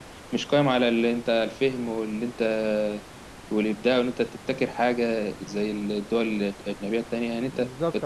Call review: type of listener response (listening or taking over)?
taking over